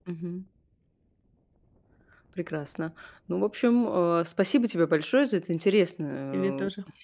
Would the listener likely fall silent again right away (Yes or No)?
Yes